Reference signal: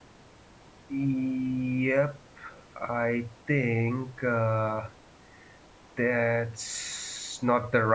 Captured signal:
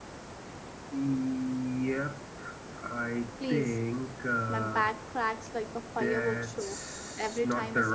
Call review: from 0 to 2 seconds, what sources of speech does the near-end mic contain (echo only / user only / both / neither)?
echo only